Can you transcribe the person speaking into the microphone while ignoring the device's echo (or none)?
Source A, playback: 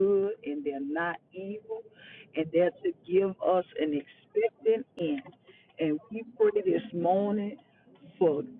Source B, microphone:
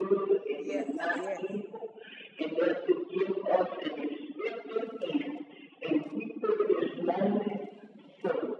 Yes. Yes.